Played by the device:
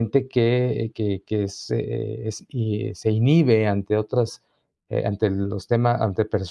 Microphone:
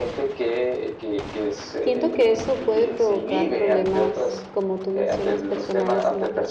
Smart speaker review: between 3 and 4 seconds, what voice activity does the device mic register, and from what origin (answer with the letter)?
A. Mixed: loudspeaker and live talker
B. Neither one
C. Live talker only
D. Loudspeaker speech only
A